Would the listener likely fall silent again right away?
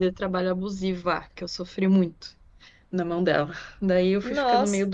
Yes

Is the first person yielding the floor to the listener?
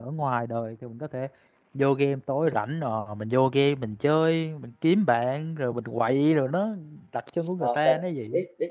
Yes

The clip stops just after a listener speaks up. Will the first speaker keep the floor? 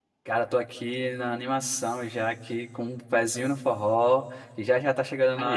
Yes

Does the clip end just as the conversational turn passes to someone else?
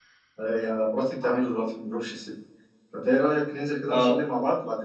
No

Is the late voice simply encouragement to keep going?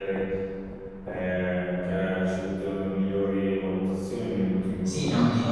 No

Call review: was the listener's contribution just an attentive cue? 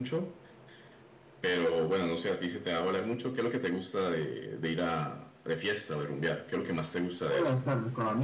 No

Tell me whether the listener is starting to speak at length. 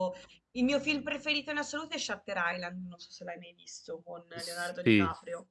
Yes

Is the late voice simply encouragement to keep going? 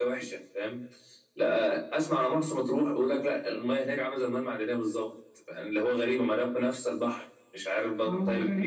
No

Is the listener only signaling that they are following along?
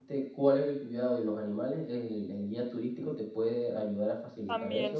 No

